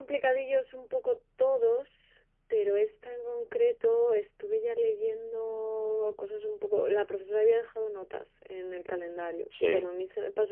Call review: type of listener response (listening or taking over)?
listening